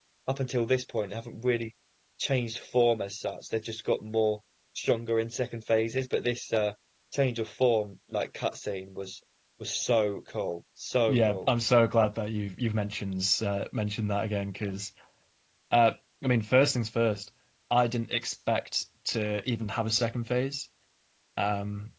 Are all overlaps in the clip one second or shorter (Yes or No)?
Yes